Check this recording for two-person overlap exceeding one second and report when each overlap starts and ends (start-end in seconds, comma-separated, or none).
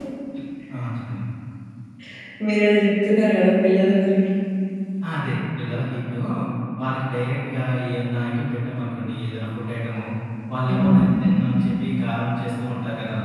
none